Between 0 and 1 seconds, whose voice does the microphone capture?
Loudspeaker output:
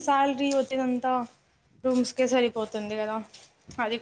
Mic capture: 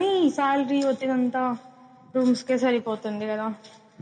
echo only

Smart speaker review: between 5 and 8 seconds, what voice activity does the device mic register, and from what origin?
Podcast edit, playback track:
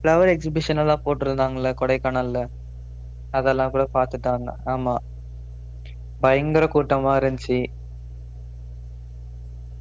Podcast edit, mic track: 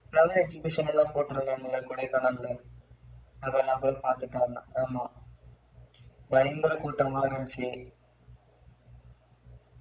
echo only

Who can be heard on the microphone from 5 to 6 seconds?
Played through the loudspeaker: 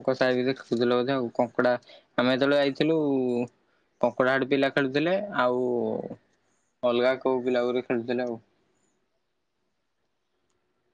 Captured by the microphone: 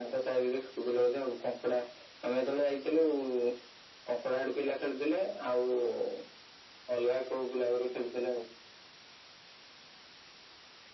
echo only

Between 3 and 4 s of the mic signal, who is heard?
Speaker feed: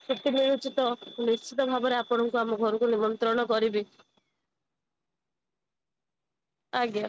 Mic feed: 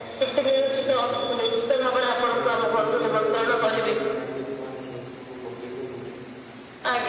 both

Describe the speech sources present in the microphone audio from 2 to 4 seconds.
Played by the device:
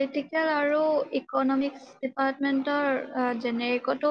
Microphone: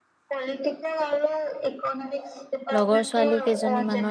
both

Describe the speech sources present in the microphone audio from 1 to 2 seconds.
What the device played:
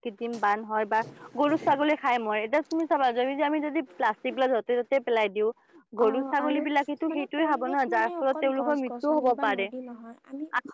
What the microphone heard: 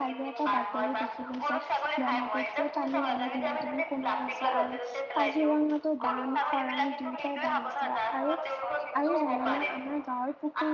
both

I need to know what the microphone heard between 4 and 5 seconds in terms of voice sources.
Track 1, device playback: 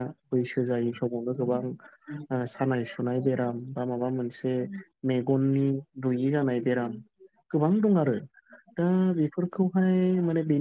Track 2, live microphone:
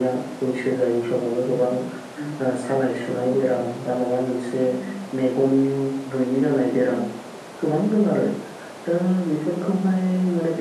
echo only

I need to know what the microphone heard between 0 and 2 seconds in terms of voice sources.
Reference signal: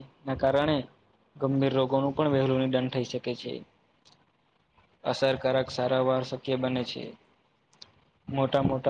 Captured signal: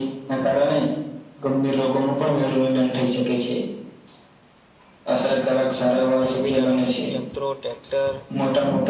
echo only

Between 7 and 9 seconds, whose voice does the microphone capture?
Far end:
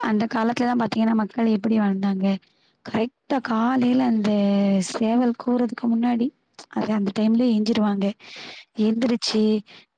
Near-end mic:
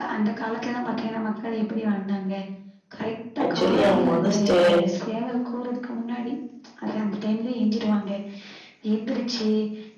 echo only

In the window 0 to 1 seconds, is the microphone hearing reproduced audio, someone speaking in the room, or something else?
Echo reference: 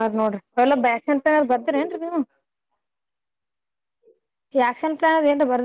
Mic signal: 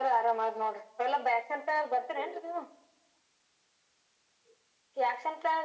echo only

